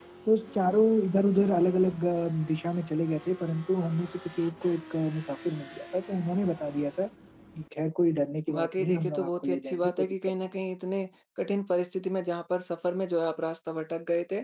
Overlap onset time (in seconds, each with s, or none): 8.5 s